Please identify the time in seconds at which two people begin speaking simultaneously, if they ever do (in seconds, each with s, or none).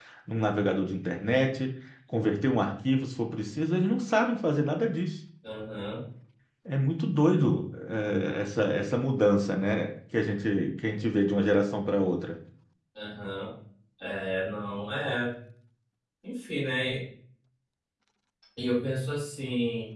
none